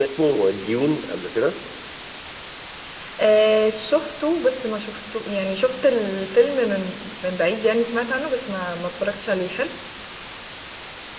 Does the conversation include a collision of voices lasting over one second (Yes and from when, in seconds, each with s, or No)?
No